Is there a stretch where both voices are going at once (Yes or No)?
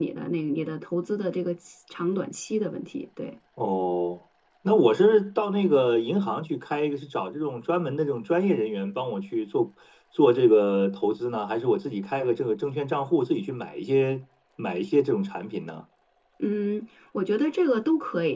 No